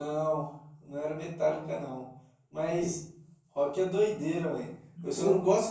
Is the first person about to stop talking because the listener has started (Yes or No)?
No